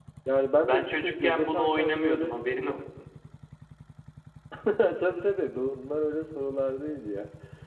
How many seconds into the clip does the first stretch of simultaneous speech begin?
0.6 s

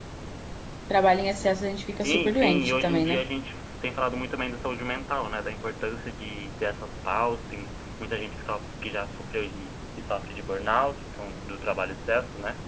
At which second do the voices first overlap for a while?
2.0 s

